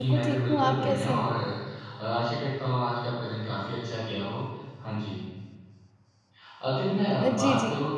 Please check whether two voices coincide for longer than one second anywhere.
Yes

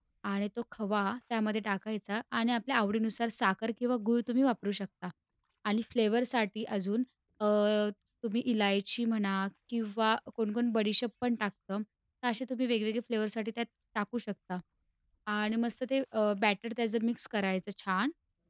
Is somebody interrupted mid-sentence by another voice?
No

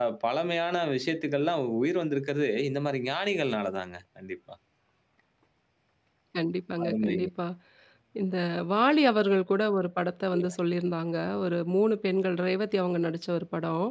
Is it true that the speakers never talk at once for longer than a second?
Yes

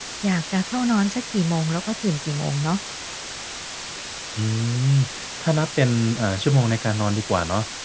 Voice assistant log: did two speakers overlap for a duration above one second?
No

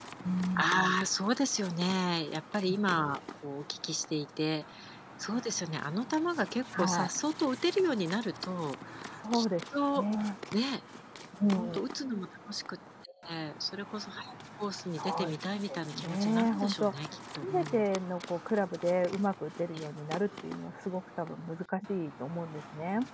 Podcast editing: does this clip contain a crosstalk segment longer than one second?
Yes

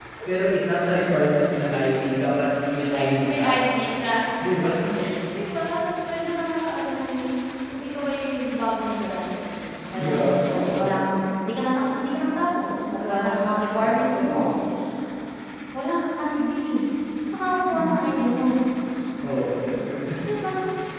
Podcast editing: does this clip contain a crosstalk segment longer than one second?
Yes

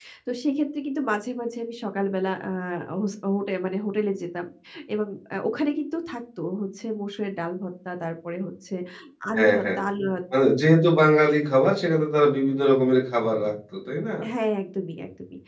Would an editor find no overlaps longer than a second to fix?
Yes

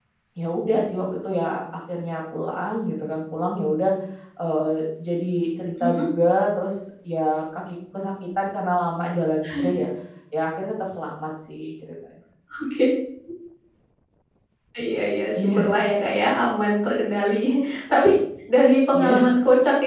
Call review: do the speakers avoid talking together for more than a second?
Yes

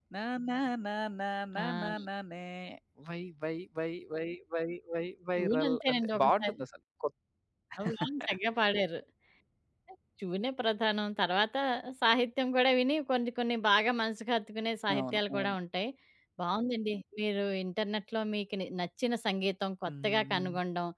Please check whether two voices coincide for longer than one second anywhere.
Yes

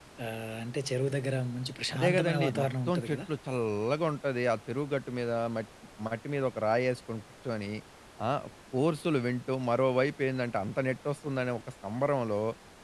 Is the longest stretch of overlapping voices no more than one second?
No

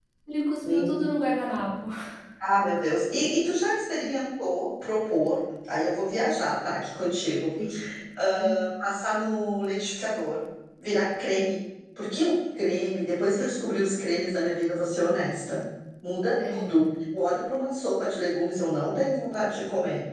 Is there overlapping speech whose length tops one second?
No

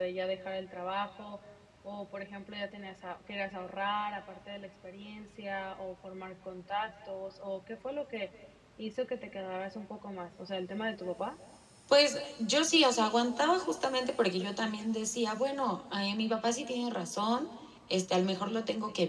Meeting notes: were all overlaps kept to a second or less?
Yes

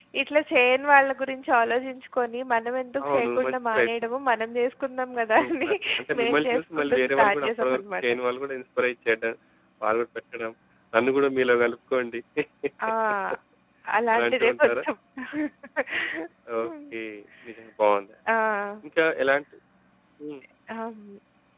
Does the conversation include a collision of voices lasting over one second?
Yes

